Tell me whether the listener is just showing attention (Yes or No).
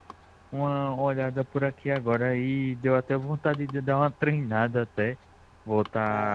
Yes